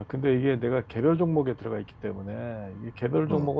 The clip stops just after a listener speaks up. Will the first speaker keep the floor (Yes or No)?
Yes